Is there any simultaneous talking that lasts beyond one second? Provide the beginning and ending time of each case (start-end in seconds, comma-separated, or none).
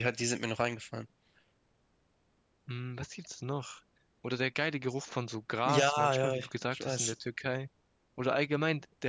5.7-7.1